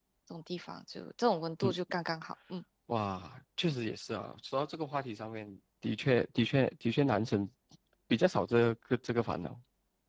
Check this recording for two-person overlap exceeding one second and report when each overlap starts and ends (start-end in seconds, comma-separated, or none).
none